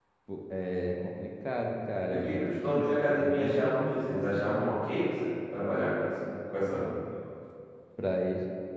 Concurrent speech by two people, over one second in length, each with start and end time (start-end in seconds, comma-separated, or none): 2.1-4.7